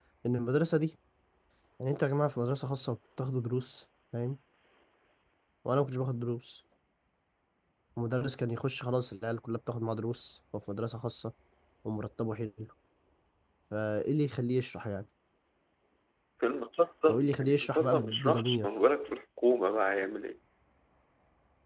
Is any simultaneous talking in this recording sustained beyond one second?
Yes, from 17.1 s

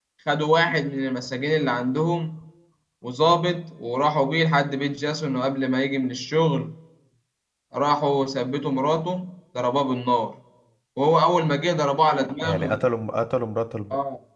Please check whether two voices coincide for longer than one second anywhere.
No

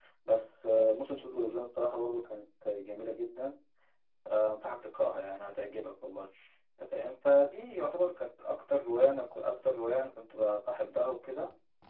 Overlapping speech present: No

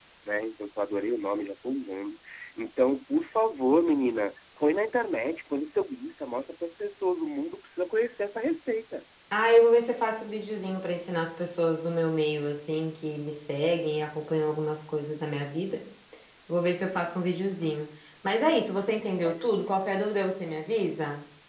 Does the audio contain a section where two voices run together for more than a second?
No

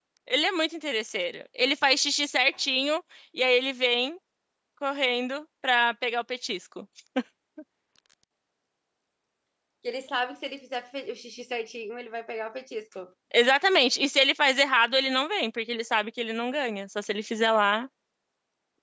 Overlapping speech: No

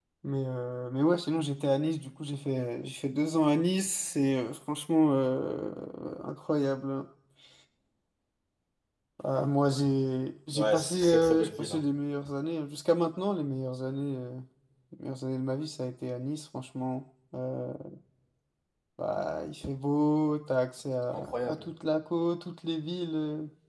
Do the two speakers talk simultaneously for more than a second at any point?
Yes, from 10.6 s

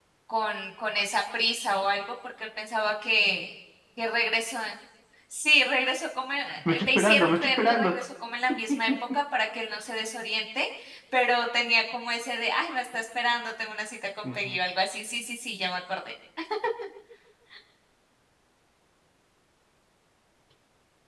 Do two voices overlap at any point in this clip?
Yes, from 6.7 s

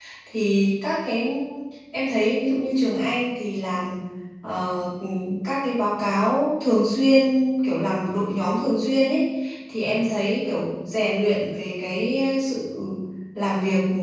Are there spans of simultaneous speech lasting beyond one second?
No

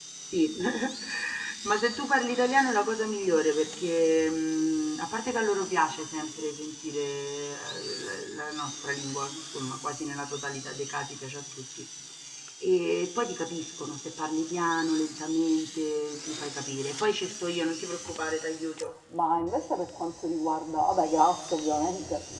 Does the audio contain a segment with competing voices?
No

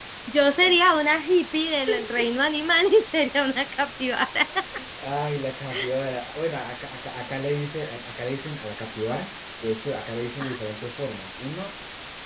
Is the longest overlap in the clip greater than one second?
No

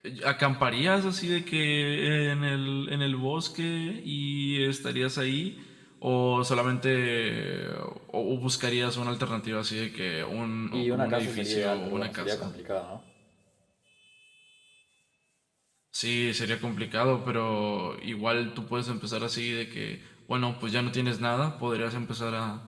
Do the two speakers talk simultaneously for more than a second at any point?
Yes, from 10.7 s

